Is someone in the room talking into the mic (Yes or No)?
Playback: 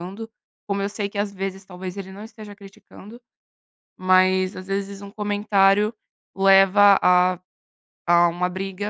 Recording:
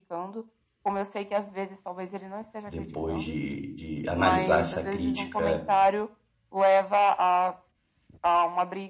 Yes